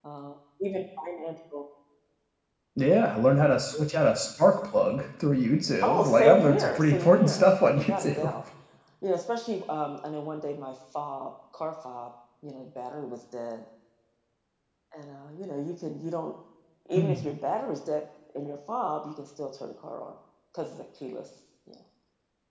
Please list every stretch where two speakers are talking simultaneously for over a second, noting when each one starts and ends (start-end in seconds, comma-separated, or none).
5.8-8.3